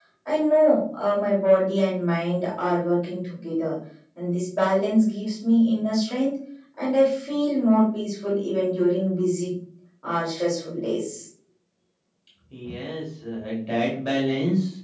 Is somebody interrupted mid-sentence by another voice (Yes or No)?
No